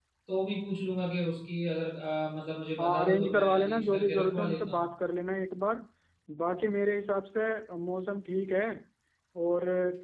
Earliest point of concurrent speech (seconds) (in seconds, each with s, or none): 2.8 s